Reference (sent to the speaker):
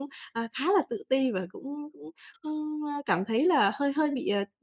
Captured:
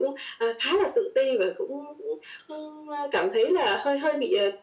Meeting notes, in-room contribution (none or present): none